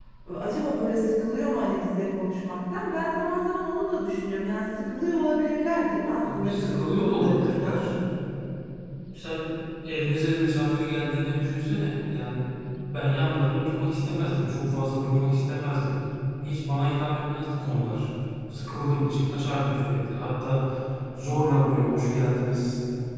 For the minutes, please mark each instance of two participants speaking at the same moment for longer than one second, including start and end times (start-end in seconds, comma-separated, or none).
6.3-7.8